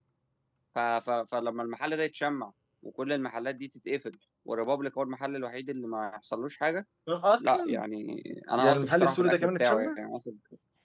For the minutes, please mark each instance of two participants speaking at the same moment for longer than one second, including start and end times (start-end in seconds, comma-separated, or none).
8.6-10.0